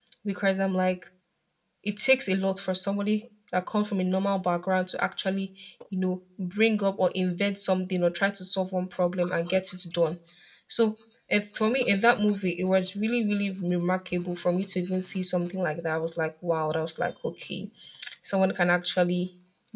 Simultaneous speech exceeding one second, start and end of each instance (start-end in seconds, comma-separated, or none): none